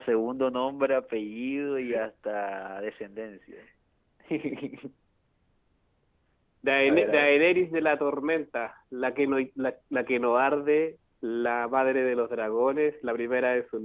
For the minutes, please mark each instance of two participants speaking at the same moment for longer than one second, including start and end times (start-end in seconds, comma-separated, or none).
none